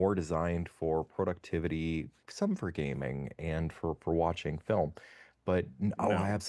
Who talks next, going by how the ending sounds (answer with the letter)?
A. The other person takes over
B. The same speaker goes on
B